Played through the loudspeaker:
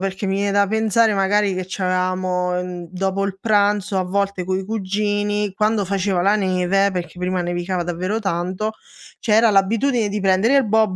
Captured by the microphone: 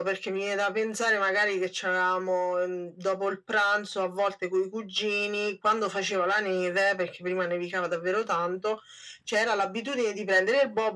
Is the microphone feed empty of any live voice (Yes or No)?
Yes